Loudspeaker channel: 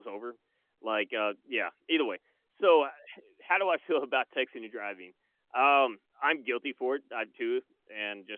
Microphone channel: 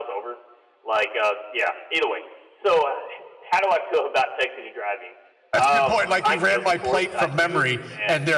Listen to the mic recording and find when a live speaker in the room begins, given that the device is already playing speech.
6 s

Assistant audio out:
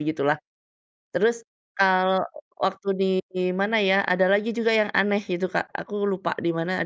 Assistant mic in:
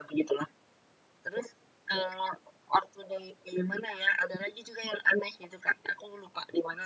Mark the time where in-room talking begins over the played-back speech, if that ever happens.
none

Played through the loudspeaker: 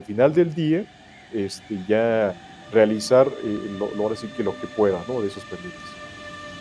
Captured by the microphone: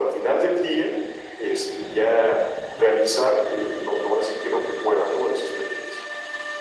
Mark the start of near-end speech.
none

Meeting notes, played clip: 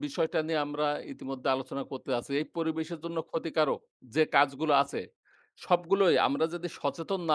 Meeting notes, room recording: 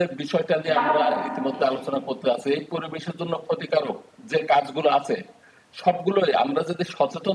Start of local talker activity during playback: 1 s

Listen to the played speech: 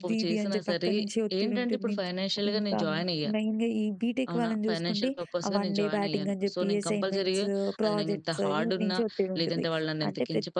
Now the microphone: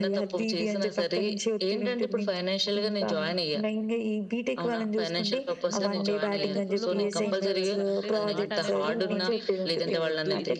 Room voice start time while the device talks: 6 s

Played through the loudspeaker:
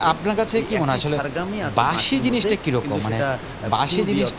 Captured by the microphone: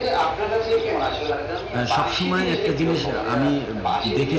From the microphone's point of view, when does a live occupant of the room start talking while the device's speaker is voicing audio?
2 s

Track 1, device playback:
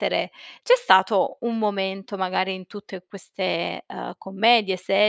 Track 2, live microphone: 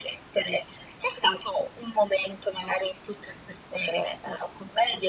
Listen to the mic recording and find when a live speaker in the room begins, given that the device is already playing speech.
none

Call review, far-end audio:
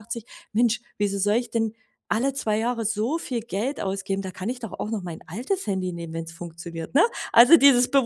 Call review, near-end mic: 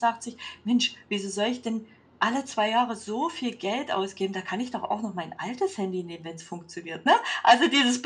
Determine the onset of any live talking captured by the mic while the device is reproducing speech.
none

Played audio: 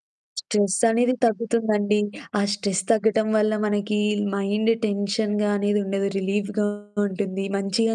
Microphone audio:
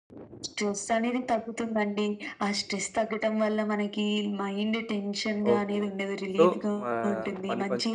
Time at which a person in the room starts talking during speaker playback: 6 s

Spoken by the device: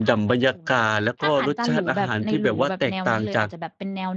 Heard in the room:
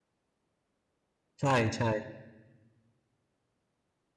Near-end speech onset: 1 s

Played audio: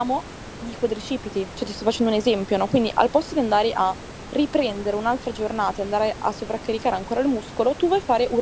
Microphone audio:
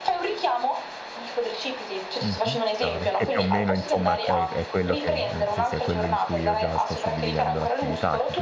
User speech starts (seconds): 2 s

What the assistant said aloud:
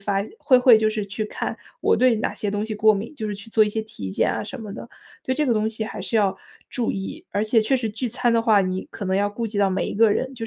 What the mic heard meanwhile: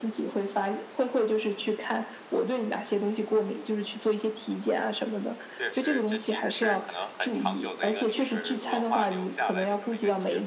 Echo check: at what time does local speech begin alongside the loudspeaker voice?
6 s

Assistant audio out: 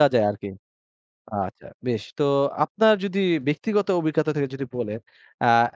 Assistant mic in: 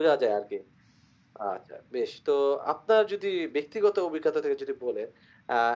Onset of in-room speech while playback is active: none

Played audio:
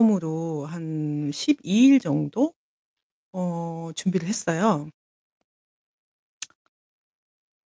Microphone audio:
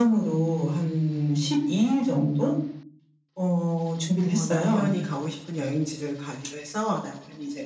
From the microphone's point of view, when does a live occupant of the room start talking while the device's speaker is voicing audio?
4 s

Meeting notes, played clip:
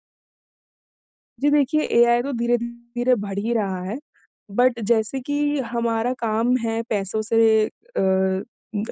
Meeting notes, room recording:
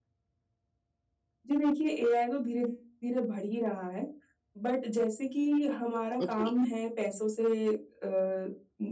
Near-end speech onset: 6 s

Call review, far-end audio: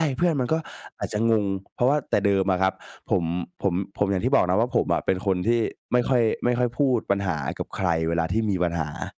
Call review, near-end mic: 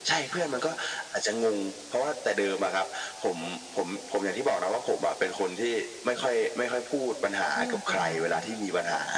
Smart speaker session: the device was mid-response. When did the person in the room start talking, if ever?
8 s

